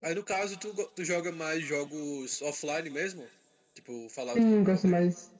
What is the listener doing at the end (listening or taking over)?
taking over